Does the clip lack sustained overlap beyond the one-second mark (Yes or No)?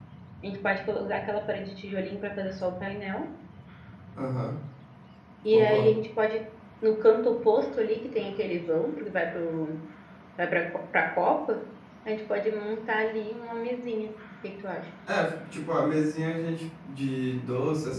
Yes